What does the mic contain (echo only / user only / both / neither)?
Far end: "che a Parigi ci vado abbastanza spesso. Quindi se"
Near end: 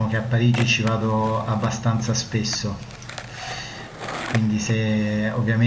echo only